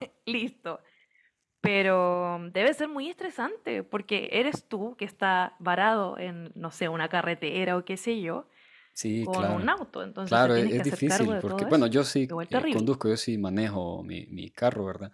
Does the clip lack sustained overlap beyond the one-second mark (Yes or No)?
No